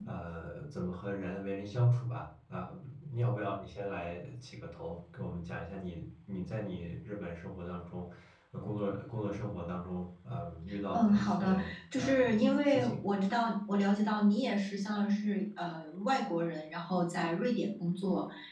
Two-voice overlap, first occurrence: 11 s

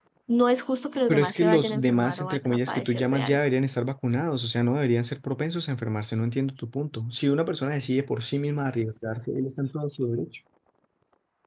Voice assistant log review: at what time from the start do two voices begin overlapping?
1 s

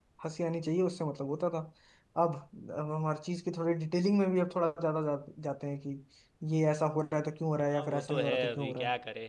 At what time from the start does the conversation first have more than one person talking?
8 s

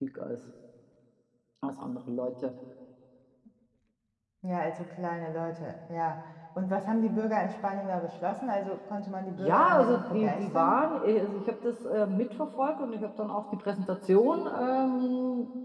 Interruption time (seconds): 9 s

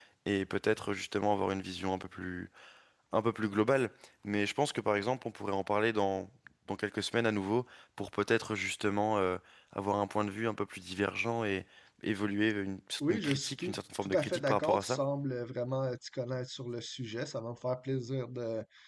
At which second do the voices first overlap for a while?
13 s

